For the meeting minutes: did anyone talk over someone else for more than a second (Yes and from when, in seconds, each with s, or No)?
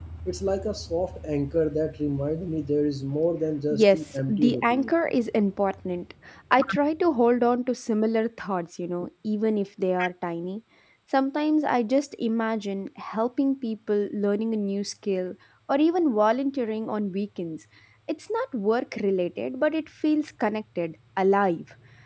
Yes, from 3.7 s